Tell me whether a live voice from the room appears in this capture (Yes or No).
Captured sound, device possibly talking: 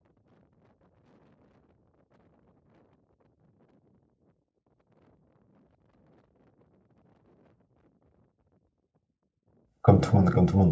Yes